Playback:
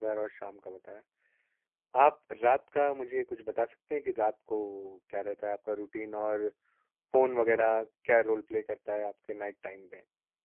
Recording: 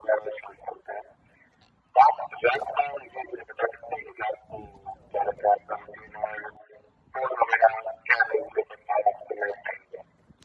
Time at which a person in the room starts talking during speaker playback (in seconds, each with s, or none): none